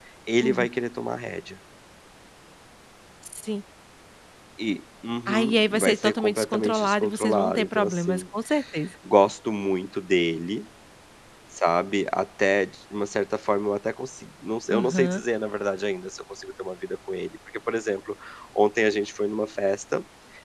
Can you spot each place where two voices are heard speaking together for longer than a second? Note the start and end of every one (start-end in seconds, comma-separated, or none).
5.3-8.2